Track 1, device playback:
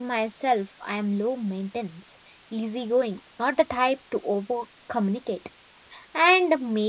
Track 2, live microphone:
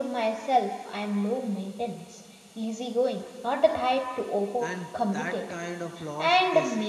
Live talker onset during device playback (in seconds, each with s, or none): 4.6 s